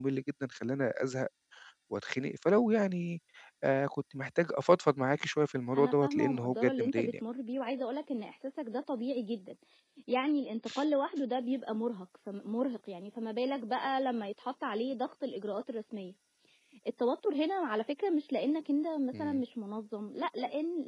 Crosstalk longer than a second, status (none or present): present